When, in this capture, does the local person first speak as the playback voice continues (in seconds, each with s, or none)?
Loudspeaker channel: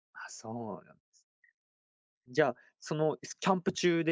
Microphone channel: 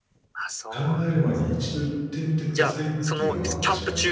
0.7 s